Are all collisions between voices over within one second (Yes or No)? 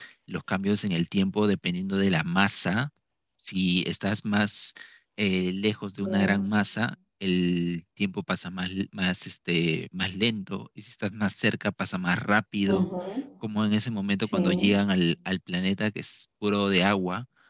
Yes